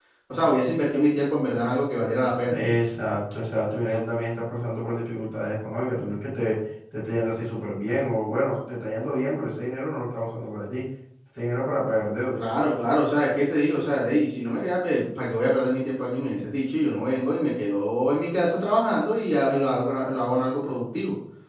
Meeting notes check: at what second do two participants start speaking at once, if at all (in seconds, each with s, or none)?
none